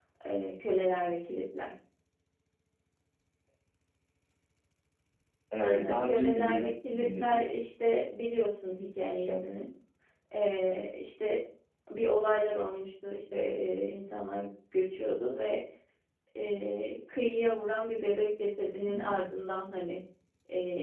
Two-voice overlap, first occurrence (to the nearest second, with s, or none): 6 s